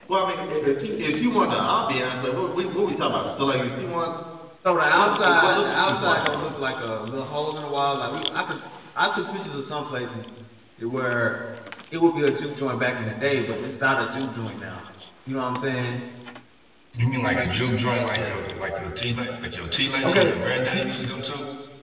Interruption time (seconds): 4.9 s

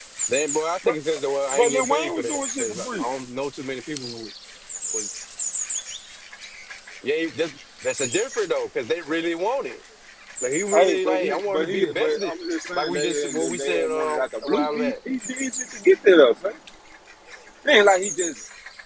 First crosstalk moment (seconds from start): 1.6 s

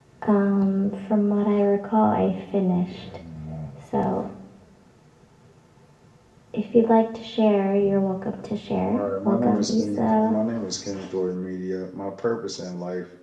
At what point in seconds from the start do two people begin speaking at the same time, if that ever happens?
8.9 s

